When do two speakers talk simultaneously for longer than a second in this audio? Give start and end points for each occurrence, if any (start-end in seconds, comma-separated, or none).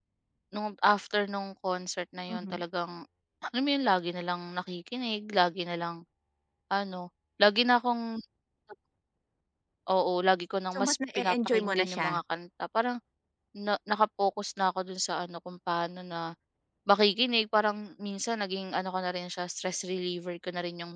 10.7-12.2